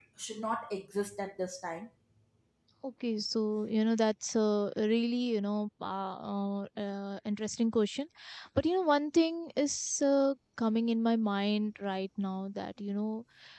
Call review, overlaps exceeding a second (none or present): none